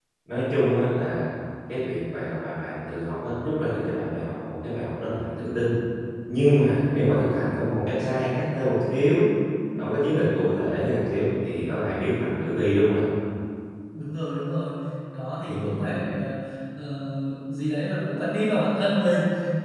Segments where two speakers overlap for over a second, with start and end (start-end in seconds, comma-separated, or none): none